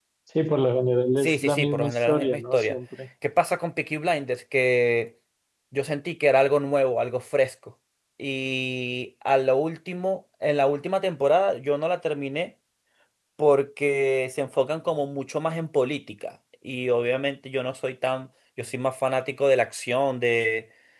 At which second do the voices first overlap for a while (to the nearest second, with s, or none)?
1 s